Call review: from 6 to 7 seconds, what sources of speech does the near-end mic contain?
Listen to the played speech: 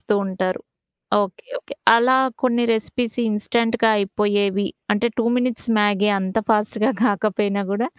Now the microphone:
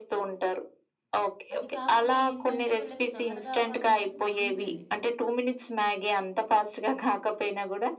echo only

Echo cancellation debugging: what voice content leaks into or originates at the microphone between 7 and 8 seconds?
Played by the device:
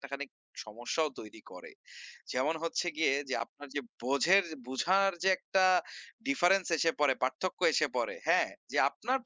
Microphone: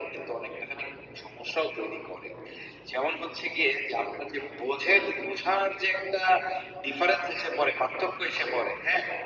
echo only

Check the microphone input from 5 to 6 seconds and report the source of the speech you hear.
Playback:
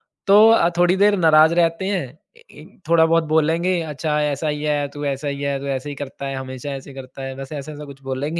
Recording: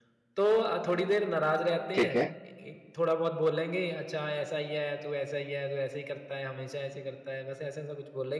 echo only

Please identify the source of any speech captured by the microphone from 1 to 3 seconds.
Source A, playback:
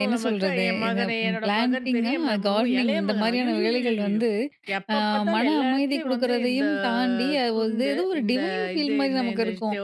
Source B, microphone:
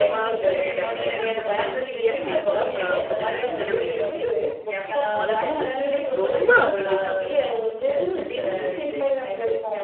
both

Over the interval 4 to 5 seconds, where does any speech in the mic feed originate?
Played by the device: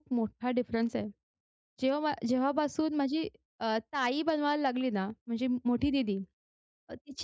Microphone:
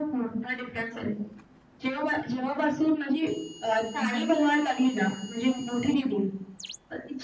both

